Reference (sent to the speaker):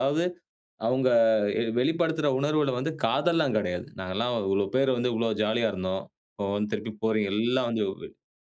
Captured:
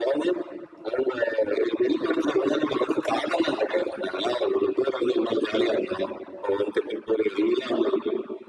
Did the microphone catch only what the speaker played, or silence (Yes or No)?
Yes